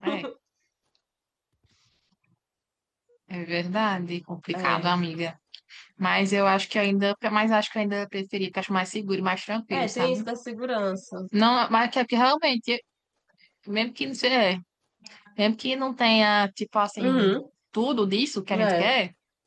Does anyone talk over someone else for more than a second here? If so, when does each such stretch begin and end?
none

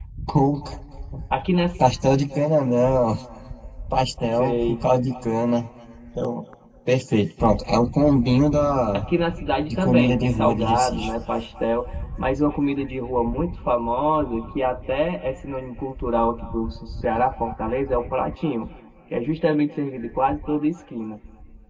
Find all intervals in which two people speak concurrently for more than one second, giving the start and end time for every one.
9.7-11.1

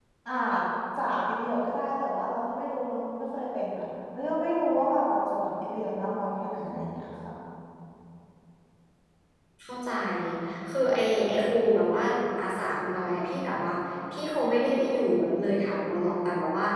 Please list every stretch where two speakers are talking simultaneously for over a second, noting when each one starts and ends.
none

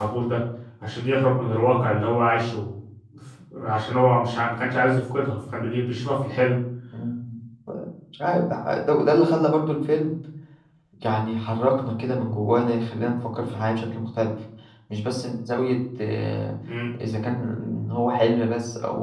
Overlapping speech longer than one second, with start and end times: none

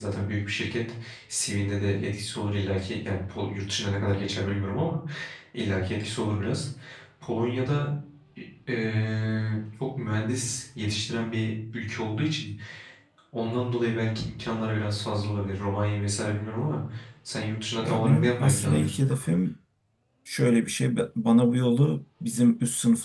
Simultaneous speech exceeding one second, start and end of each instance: 17.8-19.1

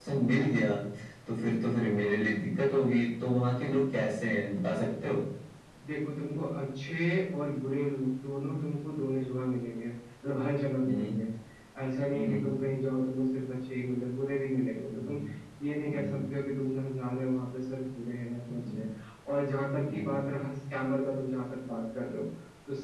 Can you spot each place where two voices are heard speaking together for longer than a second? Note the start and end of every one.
none

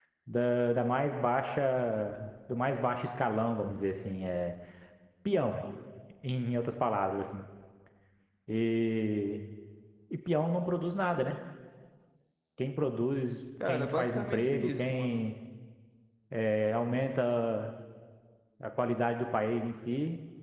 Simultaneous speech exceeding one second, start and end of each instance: 13.7-15.2

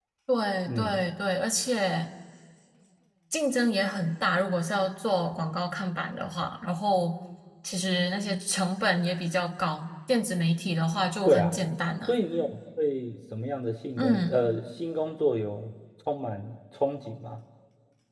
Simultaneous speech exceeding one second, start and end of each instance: none

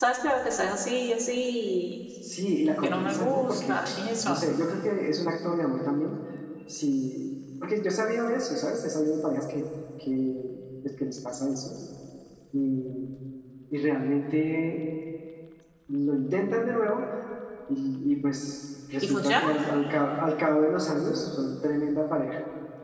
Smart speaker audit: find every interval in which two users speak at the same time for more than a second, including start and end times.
2.5-3.8

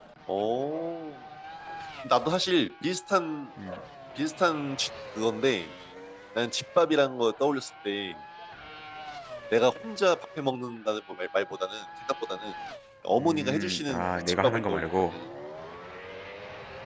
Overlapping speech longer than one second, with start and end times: 13.2-15.2

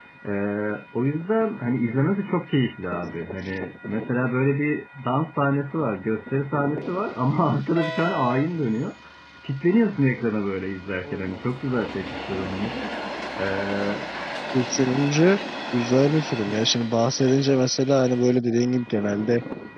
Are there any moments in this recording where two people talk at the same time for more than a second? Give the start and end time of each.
none

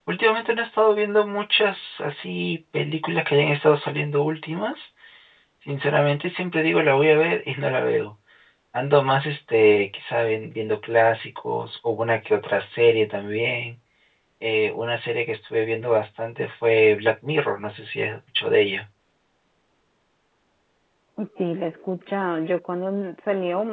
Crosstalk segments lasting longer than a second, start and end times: none

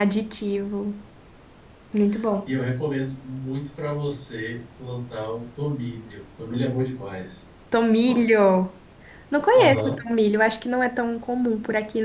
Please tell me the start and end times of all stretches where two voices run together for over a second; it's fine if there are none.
none

